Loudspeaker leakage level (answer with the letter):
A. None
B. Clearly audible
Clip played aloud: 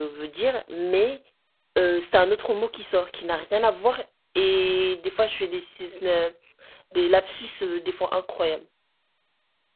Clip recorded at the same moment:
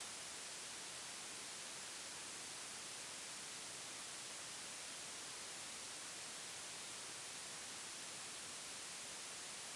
A